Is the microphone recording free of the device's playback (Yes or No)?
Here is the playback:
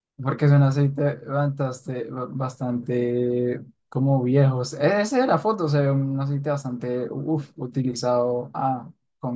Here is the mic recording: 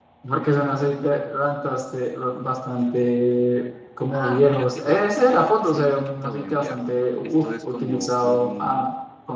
No